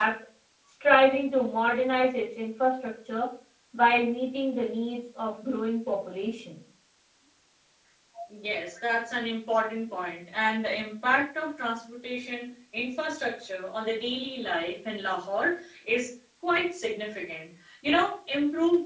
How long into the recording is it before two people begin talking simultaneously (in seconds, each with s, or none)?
none